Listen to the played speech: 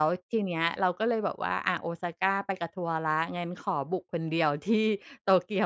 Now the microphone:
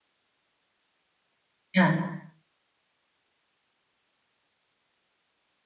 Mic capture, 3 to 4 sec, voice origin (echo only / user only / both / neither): neither